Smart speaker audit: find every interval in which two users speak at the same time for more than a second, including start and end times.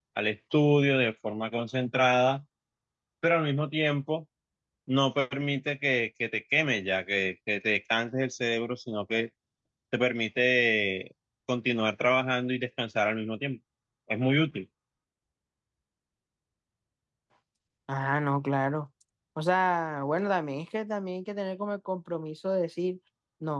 none

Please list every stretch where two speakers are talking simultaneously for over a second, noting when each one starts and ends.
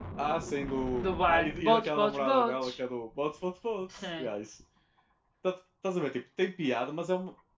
1.0-2.7

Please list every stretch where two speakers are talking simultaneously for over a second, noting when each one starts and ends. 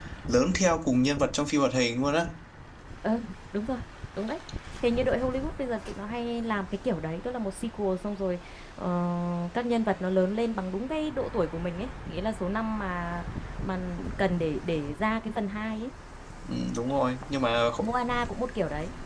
none

